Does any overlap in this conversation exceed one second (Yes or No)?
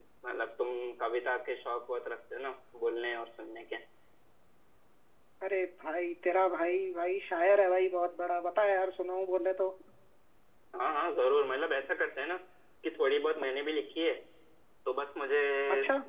No